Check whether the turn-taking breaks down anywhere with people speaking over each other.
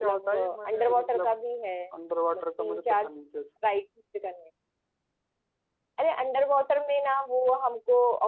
Yes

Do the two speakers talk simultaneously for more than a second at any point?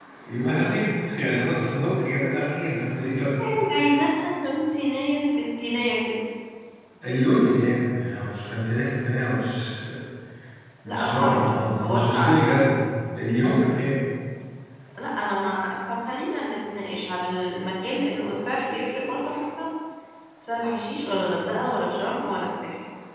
Yes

